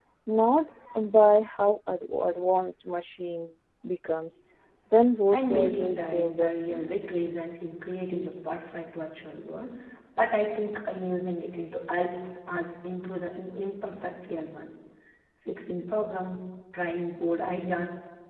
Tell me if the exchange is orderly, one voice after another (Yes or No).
No